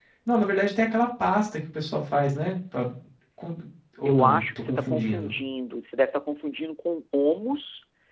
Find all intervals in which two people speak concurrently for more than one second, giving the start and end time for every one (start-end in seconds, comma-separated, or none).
4.0-5.3